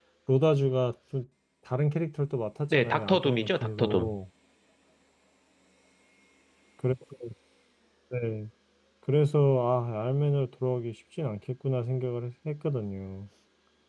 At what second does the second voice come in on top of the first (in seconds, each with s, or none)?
2.7 s